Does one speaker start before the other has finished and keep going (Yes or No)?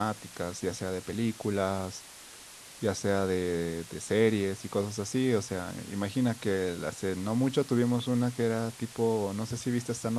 No